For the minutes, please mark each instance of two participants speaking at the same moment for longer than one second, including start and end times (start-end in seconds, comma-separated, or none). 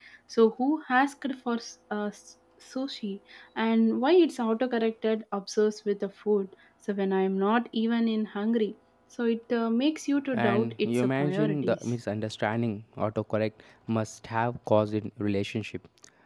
10.3-11.9